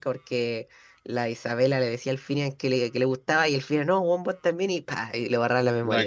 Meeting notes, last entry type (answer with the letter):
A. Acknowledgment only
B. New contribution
B